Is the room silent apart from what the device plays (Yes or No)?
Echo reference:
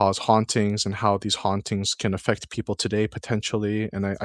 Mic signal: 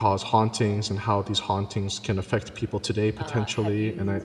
No